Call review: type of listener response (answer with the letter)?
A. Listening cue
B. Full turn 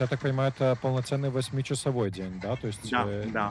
A